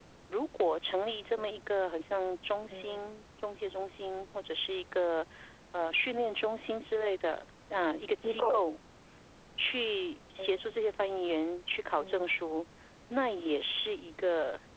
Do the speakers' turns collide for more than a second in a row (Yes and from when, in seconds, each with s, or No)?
No